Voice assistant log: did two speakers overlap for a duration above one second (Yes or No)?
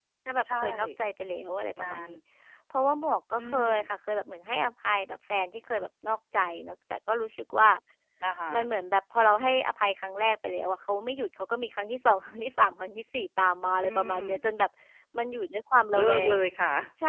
No